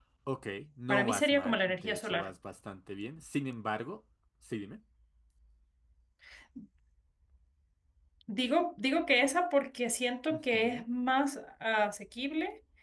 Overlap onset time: 0.9 s

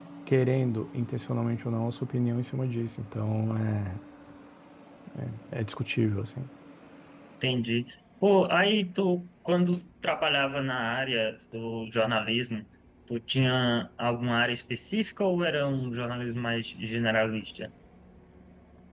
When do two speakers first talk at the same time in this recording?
none

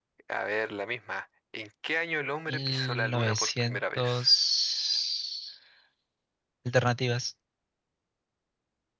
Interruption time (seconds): 2.5 s

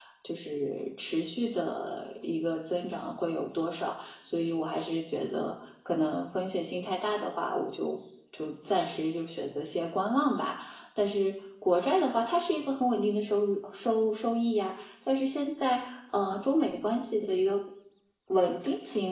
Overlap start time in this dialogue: none

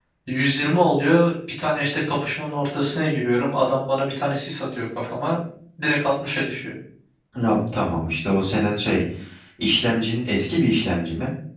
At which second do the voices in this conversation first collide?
none

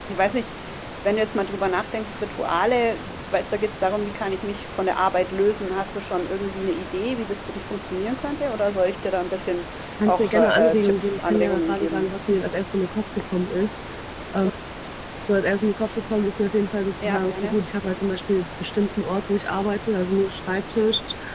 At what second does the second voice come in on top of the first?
10.1 s

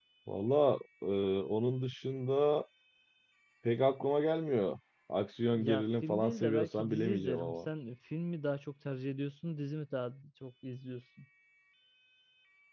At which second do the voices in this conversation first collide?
5.5 s

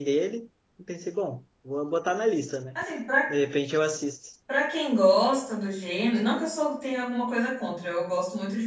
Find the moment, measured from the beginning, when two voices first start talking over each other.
none

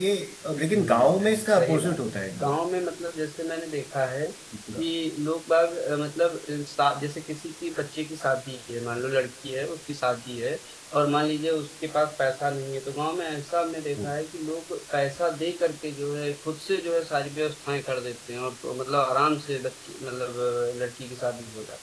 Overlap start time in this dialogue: 0.8 s

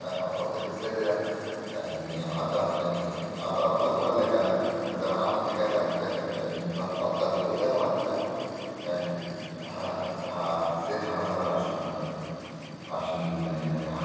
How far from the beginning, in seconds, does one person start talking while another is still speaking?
none

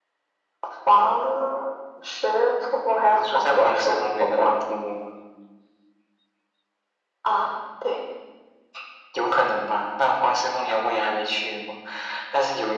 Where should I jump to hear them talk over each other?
3.1 s

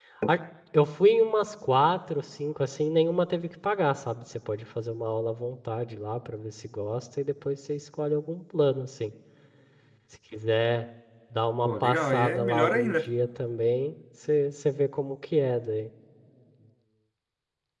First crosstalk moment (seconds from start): 11.7 s

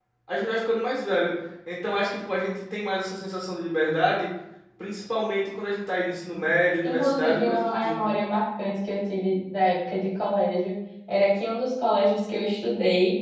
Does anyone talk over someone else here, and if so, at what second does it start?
6.8 s

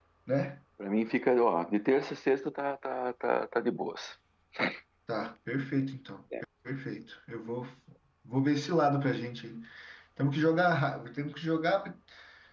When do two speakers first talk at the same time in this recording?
none

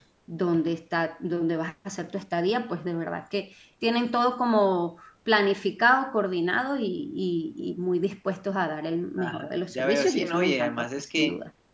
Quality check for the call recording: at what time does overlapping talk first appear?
9.2 s

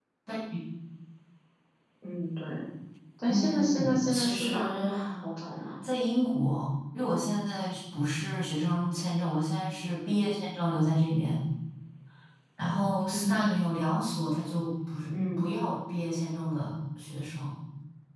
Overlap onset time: 3.3 s

